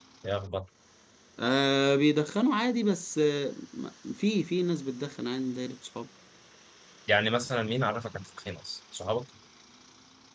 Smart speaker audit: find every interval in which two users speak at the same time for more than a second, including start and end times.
none

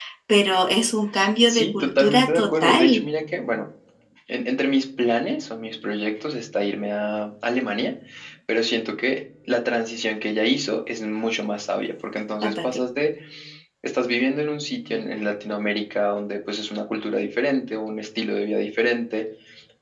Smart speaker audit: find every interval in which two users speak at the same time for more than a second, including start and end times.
1.5-3.1

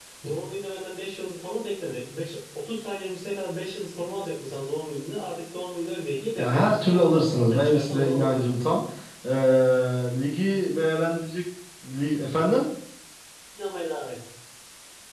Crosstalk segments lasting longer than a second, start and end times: 6.4-8.5

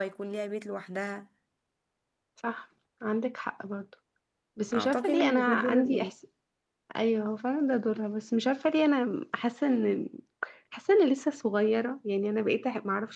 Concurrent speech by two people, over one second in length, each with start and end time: 4.7-6.1

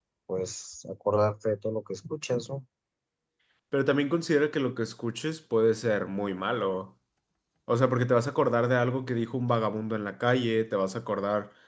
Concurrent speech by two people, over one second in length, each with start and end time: none

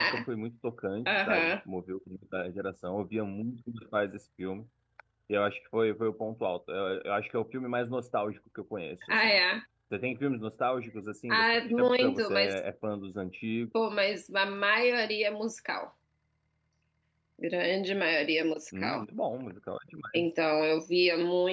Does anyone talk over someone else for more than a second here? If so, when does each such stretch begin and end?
11.3-12.5

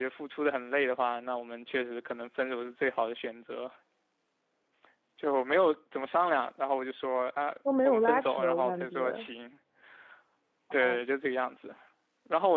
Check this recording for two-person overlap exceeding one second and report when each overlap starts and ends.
7.8-9.3

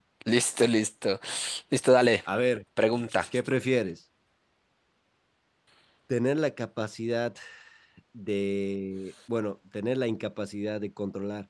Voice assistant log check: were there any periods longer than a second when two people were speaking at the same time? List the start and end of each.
none

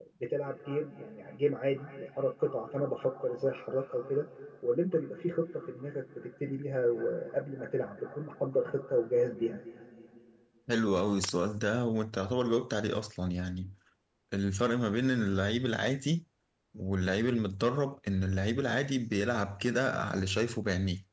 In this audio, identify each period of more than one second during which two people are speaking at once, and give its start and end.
none

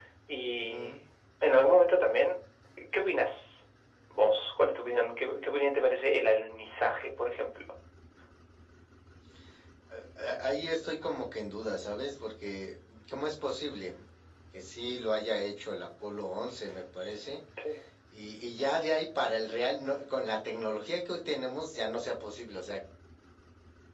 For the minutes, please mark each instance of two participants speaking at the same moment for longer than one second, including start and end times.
none

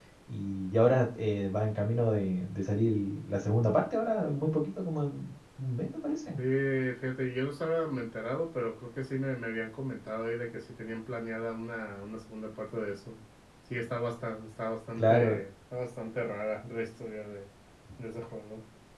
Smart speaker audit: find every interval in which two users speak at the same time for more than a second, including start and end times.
none

